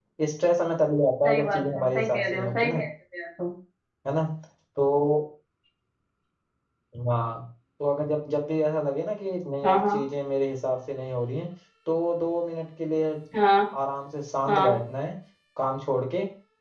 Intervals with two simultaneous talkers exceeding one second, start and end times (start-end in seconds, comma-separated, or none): 1.2-2.8